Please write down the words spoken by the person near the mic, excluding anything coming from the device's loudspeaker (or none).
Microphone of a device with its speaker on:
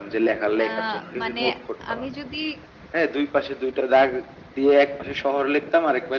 আ মানে আমি যদি